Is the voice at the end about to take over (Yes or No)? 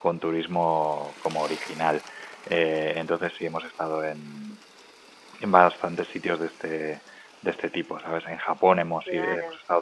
No